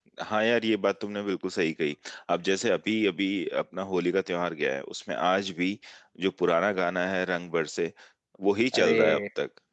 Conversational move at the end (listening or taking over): listening